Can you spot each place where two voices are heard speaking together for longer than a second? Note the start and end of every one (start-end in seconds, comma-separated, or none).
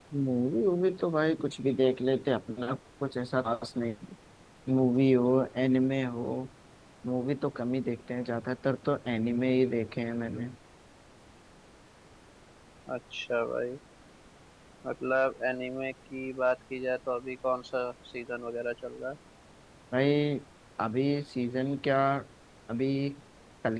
none